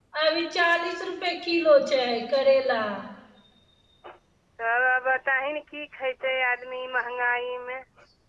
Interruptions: none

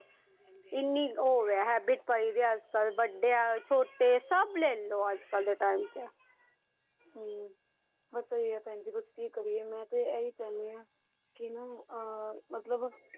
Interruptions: none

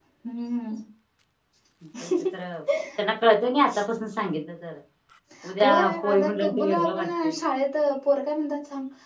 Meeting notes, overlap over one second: present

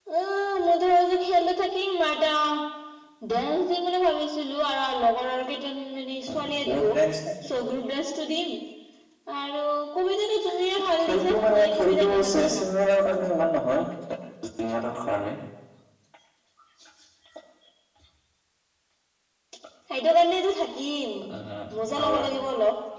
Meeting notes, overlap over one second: present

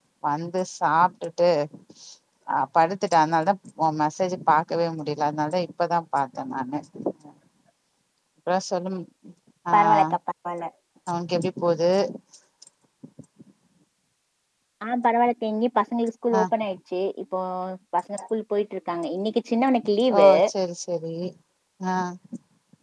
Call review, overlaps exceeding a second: none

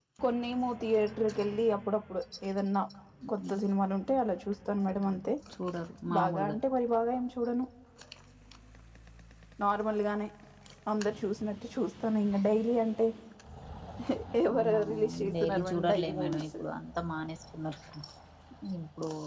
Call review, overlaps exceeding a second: present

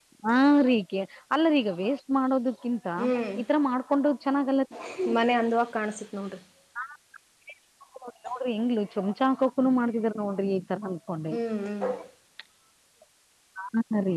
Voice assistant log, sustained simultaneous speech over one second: none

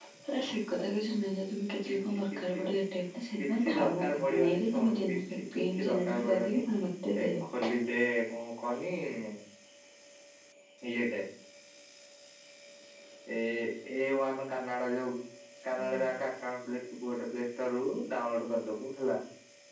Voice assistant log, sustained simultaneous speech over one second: present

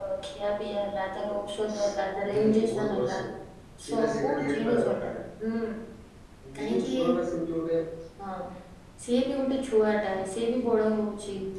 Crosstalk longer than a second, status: present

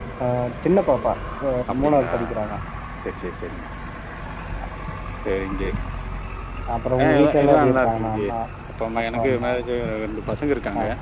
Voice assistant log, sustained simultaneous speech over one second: present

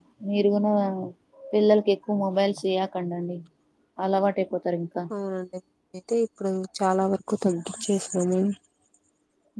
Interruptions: none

